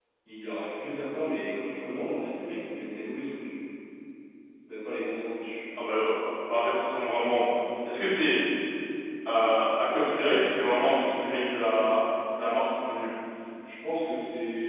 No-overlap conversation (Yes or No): Yes